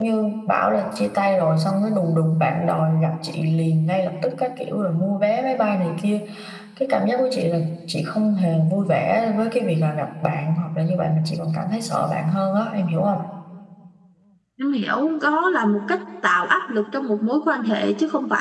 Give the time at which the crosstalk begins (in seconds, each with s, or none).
none